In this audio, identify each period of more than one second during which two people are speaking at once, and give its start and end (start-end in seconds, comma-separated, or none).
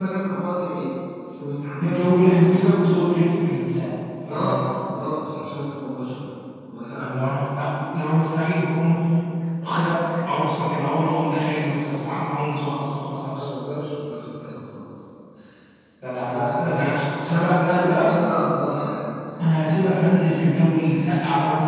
16.3-18.3